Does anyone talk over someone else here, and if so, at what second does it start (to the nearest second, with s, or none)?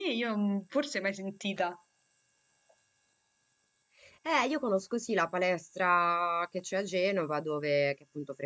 none